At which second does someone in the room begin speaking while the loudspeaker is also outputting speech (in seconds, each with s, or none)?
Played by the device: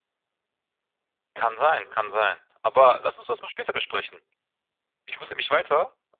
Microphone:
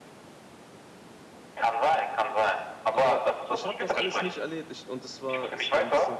2.9 s